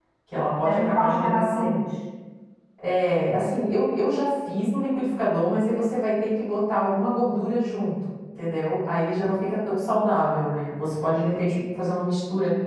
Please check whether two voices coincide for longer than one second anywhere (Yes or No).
Yes